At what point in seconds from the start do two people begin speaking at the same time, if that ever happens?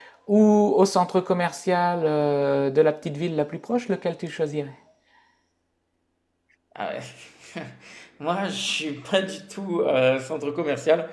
none

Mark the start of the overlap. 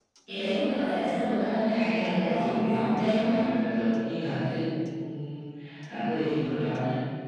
1.8 s

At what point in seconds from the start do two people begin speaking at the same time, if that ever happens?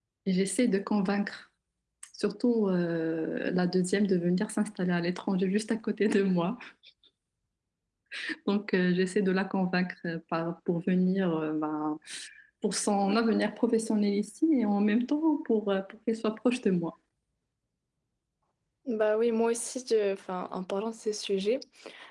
none

